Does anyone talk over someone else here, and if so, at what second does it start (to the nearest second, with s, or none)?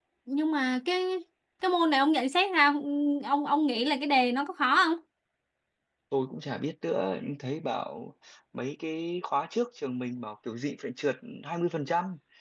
none